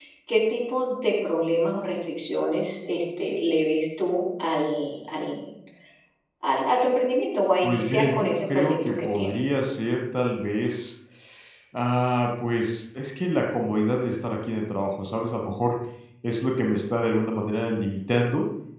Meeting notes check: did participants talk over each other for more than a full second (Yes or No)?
Yes